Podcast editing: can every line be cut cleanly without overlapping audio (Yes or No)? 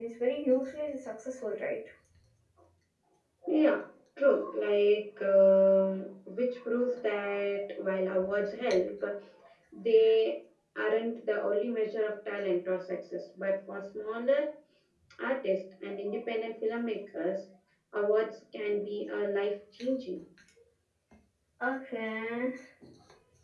Yes